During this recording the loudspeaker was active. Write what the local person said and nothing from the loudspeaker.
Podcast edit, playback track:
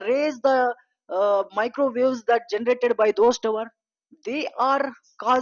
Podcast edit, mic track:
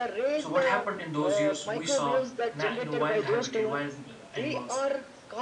So what happened in those years? We saw, na- you know, wild habitat, wild uh, animals,

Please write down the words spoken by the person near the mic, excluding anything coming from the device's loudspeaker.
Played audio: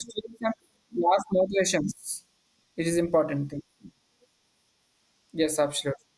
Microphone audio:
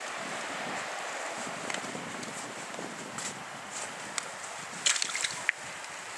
none

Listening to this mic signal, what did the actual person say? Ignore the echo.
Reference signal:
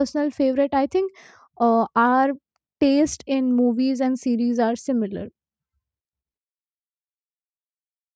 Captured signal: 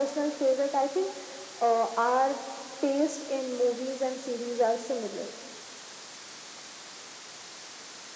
none

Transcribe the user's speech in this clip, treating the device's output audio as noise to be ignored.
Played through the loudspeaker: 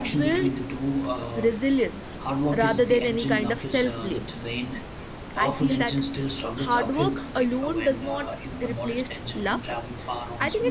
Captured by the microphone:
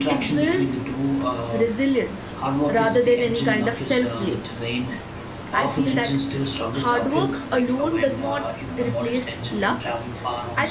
none

